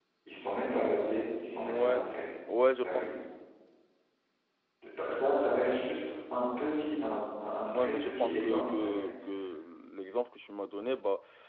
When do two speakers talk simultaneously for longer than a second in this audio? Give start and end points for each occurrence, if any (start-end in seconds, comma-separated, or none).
7.6-9.1